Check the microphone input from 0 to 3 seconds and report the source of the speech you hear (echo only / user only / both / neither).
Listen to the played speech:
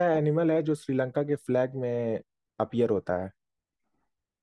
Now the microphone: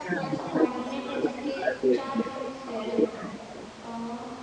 both